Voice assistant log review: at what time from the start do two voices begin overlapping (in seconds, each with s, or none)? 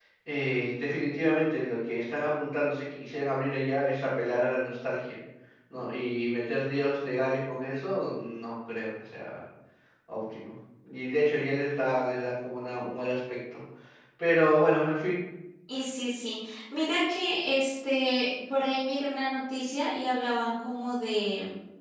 none